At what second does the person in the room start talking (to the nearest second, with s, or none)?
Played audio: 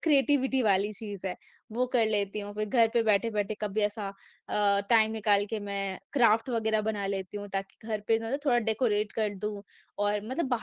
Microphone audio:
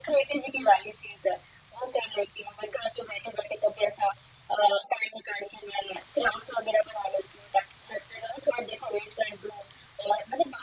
none